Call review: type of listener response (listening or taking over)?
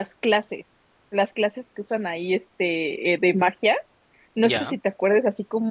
listening